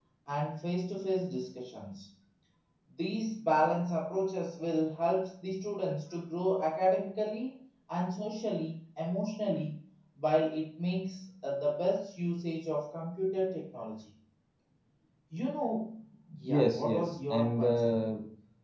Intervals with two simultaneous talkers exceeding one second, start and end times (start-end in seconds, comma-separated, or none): 16.4-18.0